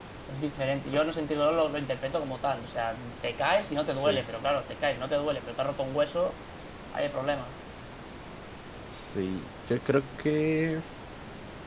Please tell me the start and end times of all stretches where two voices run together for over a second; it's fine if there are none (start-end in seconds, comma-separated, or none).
none